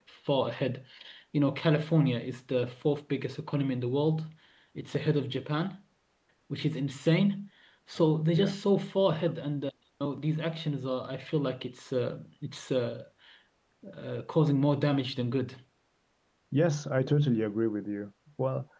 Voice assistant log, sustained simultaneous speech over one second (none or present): none